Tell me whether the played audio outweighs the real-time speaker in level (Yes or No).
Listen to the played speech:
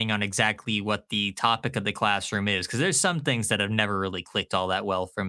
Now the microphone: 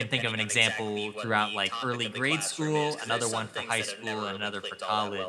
No